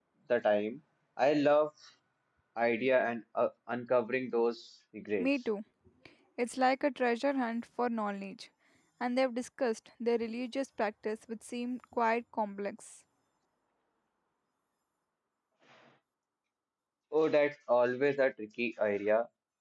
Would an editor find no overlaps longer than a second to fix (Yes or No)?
Yes